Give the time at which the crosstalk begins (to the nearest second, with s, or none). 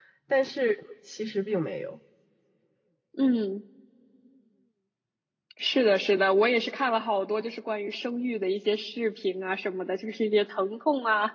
none